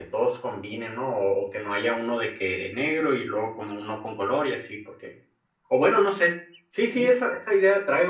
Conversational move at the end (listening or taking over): listening